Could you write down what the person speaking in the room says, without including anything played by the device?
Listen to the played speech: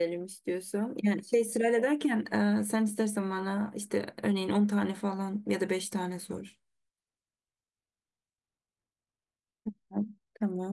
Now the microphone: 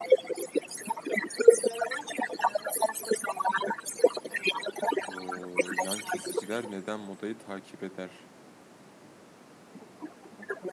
Oo, yan kesiciler neden modayı takip eder?

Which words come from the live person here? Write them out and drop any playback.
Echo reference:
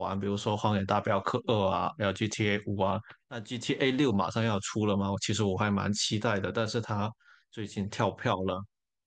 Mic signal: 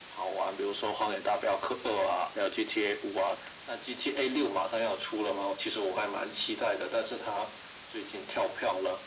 none

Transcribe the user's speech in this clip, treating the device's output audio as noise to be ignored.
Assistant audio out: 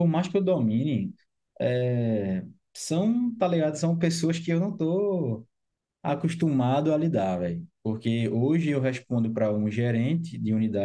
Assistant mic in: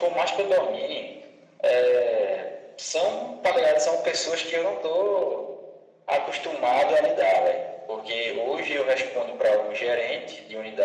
none

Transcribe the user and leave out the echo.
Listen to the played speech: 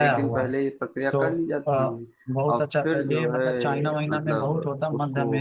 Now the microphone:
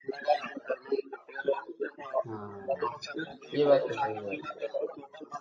हाँ ये बात तो सही है

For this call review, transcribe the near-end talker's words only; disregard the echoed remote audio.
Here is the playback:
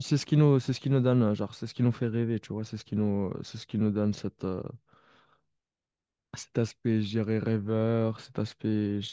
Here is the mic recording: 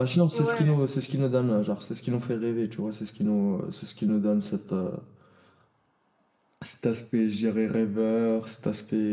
Ouais.

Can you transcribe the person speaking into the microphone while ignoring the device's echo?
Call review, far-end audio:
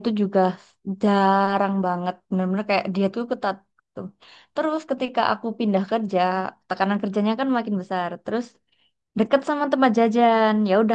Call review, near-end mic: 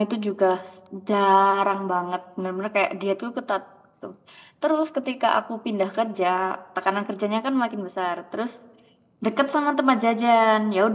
none

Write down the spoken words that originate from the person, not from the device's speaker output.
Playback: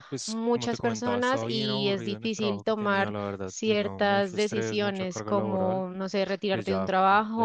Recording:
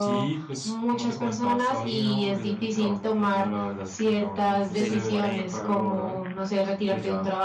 6 y 40

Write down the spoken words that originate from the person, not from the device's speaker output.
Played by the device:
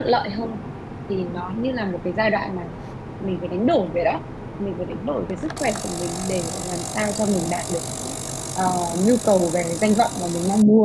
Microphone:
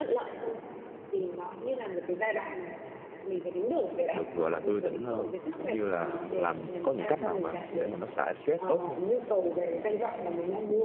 được gọi là tươi tỉnh hơn cũng như là làm có những cách nào mà để mà nó xả stress tốt không

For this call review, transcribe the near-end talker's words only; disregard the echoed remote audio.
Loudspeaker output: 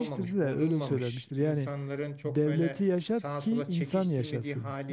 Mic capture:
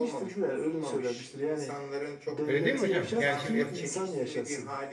Öyle değil mi hocam? Yani şimdi et,

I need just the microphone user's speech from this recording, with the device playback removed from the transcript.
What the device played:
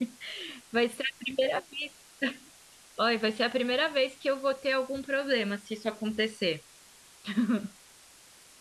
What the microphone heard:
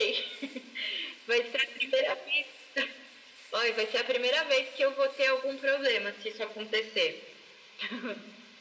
none

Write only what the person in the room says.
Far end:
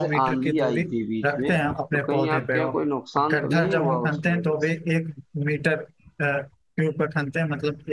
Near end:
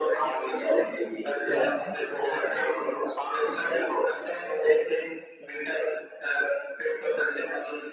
हाँ,

